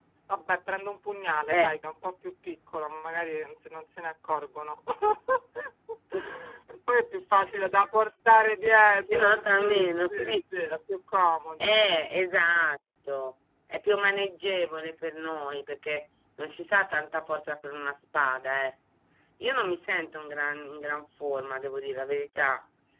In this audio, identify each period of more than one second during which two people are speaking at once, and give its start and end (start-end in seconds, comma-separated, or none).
9.0-10.6